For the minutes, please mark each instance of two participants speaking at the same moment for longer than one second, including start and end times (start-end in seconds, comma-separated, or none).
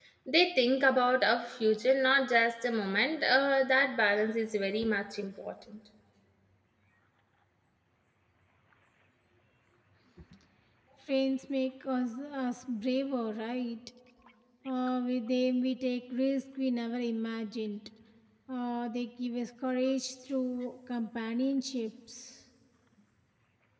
none